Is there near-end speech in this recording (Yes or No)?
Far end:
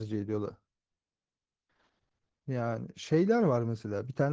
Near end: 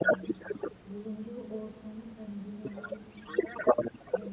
Yes